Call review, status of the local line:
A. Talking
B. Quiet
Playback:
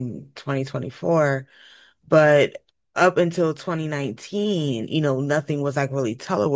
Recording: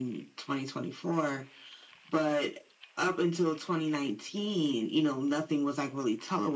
B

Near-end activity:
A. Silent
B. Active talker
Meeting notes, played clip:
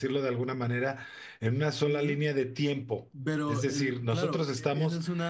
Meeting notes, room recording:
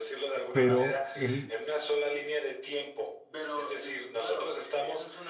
B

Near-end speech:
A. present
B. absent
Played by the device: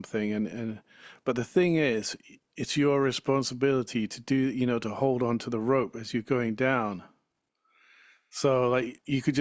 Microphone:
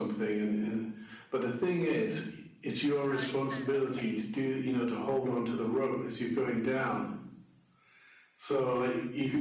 A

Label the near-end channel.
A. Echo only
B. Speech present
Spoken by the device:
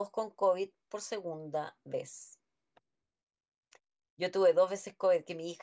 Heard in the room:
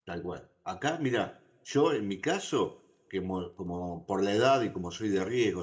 B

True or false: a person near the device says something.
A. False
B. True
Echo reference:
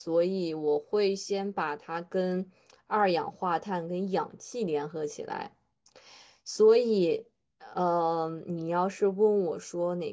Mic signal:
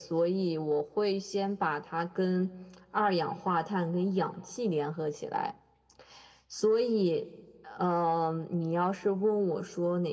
A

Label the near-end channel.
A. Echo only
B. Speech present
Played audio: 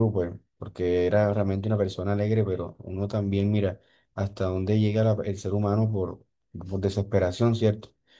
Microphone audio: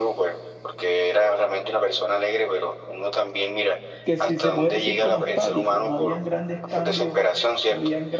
B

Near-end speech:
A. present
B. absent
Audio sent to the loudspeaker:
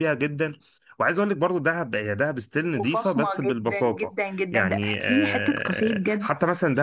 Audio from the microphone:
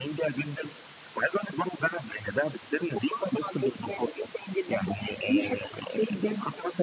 B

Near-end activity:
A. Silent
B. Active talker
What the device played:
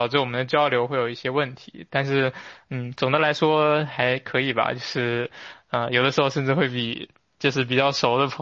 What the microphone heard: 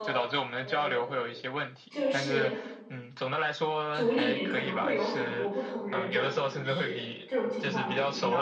B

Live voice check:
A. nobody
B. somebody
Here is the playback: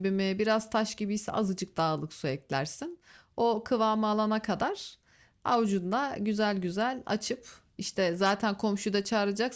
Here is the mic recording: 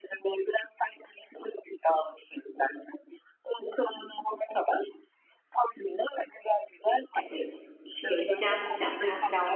B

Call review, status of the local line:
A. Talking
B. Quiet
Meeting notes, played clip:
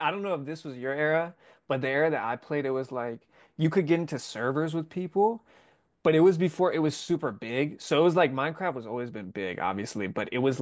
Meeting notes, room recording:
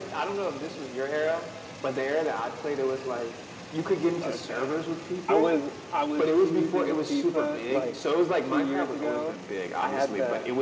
A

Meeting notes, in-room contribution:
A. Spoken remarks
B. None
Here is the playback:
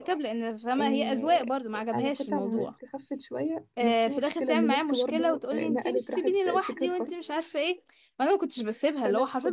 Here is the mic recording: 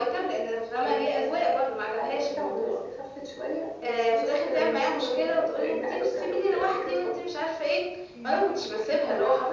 A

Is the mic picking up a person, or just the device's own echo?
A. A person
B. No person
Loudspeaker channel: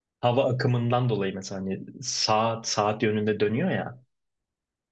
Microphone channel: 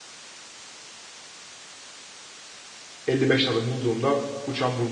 A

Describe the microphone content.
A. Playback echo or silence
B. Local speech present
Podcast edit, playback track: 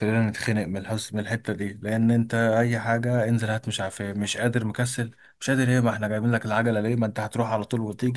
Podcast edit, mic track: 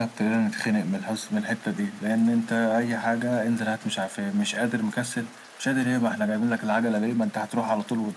A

